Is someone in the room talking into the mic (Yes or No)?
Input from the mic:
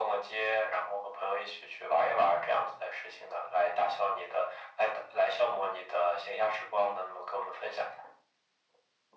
No